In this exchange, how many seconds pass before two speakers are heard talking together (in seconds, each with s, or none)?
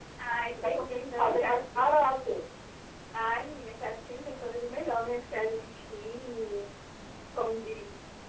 0.6 s